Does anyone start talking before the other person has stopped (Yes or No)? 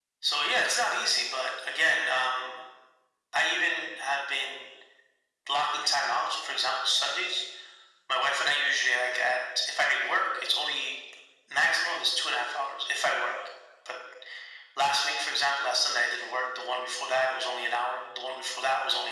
No